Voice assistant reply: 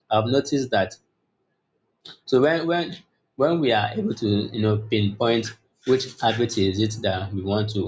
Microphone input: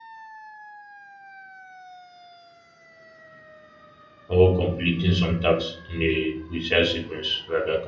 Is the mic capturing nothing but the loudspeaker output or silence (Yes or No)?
No